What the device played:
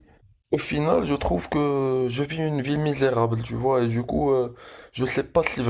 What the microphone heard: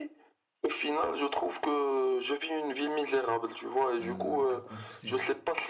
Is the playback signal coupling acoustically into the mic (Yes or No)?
Yes